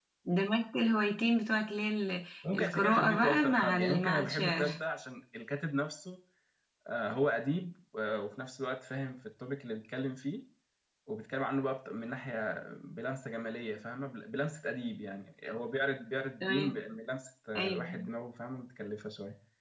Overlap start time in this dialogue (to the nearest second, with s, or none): 3 s